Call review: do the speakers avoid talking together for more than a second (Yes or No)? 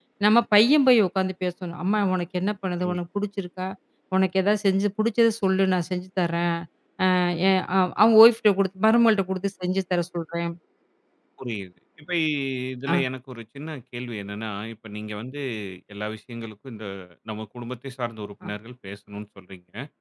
Yes